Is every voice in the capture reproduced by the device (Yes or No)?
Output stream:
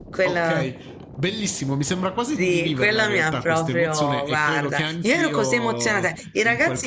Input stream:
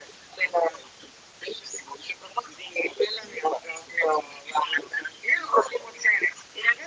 Yes